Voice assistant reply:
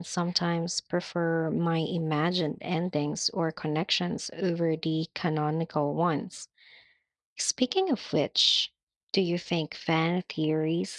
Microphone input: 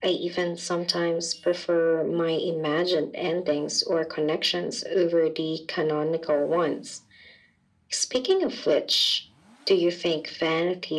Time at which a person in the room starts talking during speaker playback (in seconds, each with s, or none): none